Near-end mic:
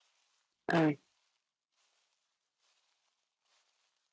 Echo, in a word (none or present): none